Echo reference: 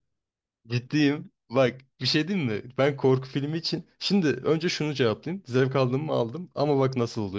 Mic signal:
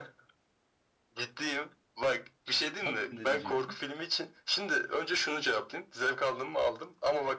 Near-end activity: present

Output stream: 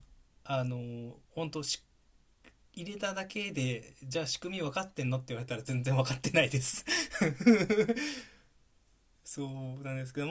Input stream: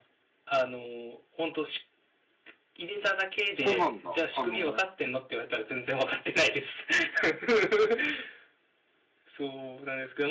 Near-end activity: present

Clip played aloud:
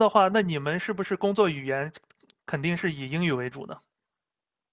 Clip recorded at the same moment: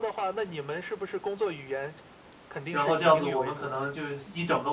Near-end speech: present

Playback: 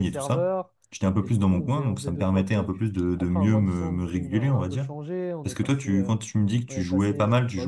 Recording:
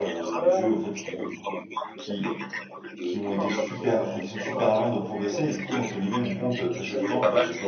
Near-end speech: present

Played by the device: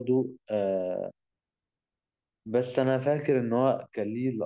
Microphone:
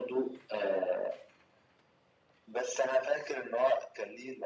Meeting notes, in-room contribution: none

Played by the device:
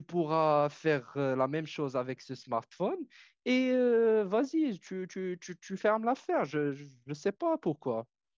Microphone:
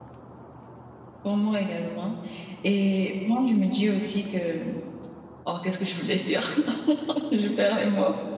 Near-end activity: present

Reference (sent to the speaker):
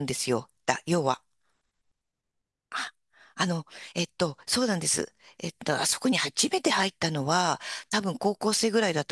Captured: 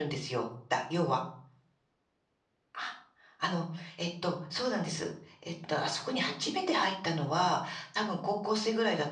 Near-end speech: none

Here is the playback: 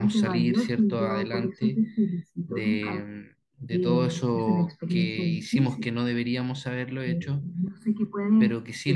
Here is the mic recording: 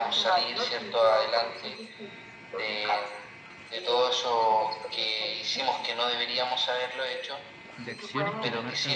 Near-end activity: present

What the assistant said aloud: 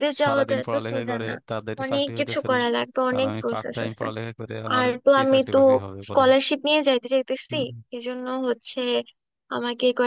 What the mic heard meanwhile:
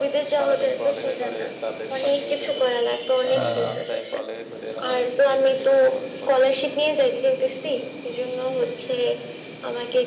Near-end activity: present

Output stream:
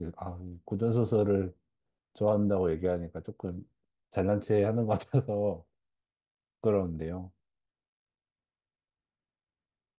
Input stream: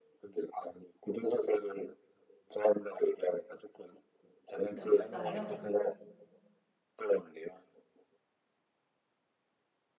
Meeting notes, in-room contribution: present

